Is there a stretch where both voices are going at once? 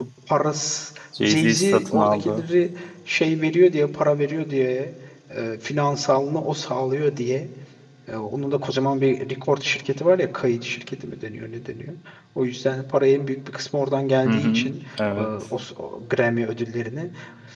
Yes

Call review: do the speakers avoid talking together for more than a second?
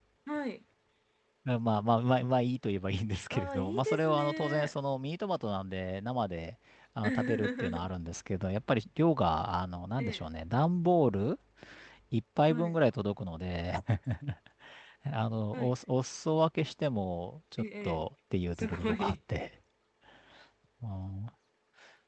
No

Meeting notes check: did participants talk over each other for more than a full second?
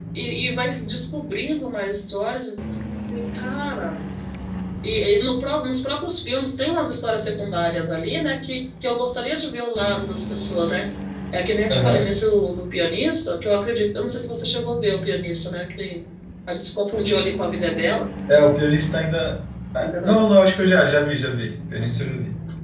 No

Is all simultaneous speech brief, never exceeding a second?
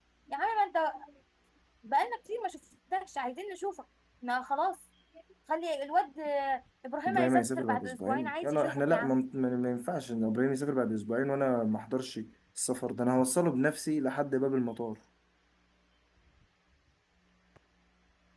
No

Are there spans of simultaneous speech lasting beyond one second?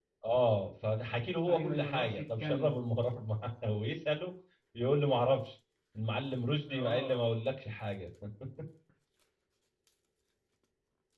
Yes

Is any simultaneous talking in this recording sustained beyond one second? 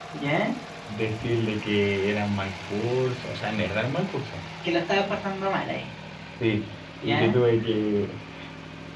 No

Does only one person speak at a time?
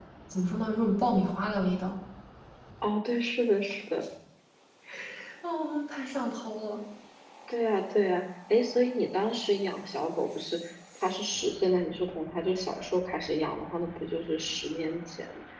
Yes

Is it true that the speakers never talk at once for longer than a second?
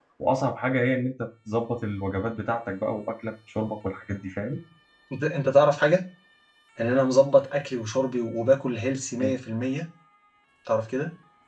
Yes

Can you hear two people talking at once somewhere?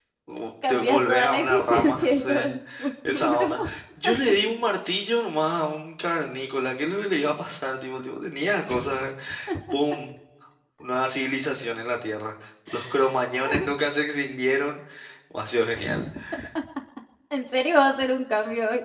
Yes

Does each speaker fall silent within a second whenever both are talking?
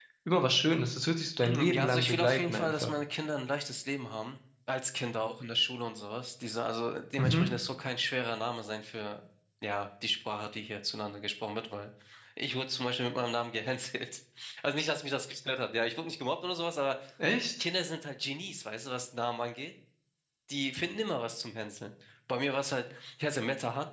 No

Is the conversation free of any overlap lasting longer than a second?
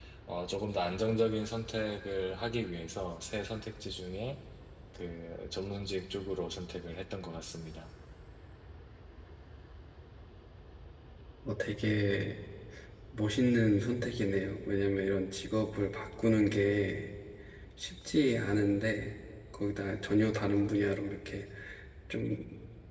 Yes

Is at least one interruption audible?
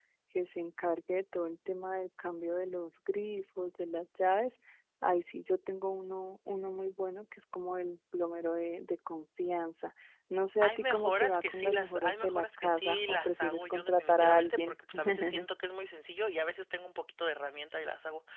Yes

